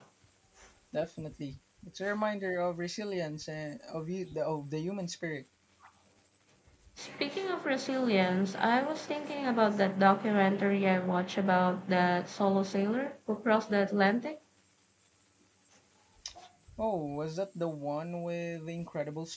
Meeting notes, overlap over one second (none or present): none